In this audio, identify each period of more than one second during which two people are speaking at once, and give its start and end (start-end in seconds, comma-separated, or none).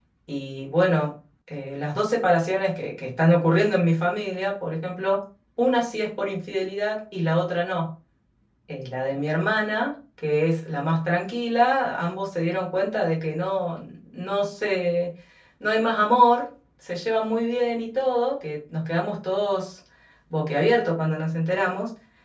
none